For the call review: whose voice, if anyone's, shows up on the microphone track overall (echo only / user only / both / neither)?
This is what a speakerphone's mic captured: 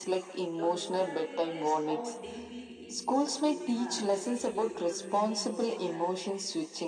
both